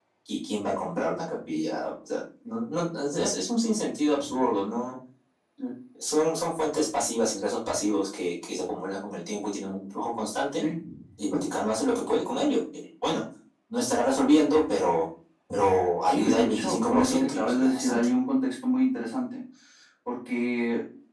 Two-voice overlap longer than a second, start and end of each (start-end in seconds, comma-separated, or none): 16.0-18.1